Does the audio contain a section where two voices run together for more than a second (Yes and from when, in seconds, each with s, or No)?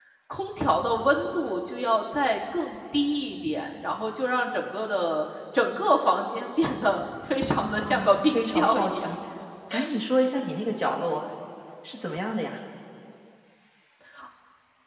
Yes, from 7.6 s